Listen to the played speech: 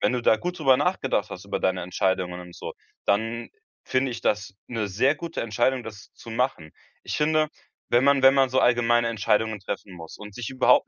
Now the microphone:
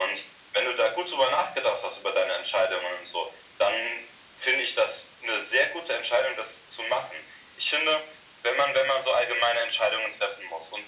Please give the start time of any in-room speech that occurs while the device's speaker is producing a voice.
none

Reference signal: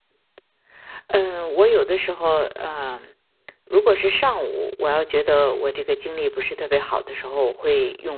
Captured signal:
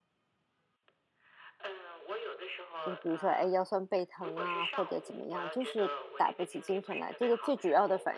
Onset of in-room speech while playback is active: 2.8 s

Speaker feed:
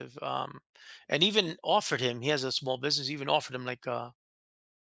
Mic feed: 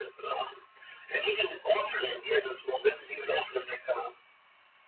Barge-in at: none

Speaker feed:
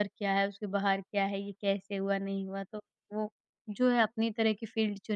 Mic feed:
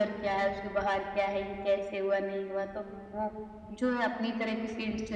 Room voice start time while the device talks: none

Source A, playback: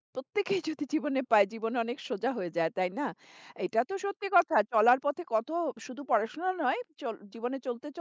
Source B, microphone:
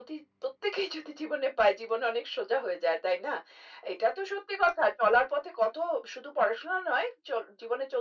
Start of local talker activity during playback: none

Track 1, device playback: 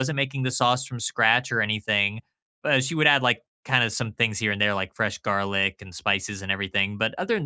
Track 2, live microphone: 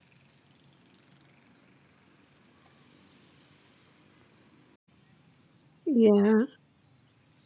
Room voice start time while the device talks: 5.8 s

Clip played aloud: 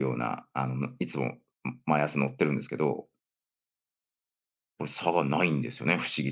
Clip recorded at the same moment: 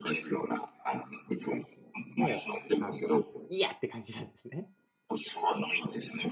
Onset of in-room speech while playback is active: 2.1 s

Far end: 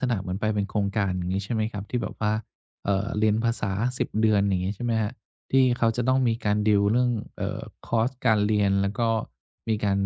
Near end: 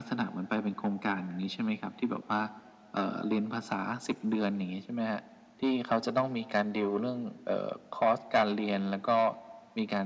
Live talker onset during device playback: none

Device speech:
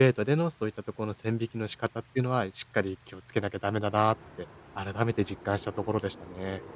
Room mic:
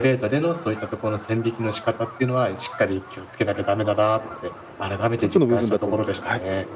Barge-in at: 5.2 s

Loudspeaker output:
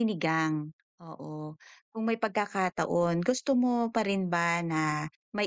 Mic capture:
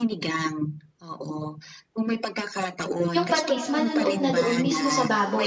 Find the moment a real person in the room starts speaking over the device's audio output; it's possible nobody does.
3.1 s

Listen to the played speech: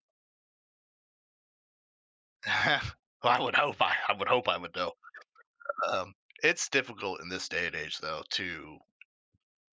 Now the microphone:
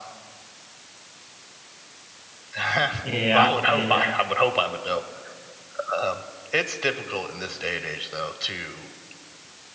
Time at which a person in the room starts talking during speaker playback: 3.0 s

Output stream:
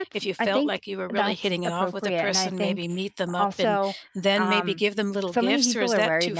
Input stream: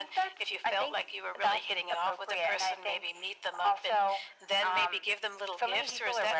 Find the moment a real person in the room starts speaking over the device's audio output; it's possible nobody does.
none

